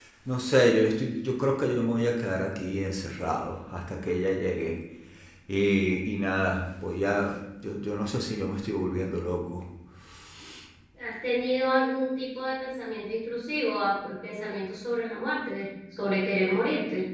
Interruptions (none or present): none